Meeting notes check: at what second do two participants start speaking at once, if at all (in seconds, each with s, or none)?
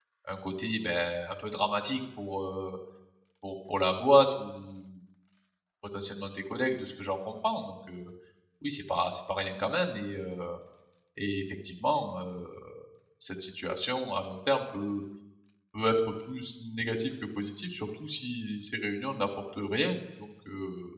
none